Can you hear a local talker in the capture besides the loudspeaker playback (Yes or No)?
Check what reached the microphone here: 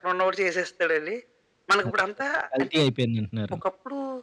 Yes